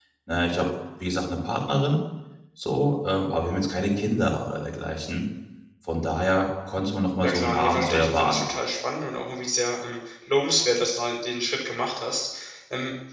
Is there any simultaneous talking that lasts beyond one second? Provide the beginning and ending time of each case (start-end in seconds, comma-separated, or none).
7.2-8.5